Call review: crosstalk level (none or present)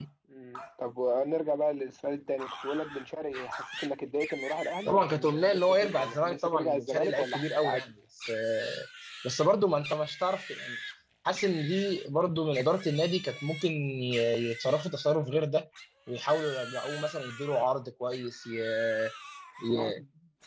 present